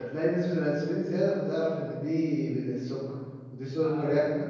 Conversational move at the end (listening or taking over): listening